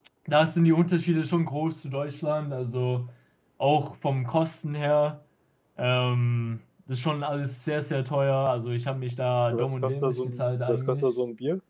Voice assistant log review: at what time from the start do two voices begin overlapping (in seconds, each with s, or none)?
9.5 s